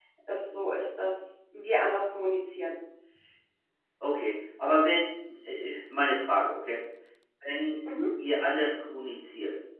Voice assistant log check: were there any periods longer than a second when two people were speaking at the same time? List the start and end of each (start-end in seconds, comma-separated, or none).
none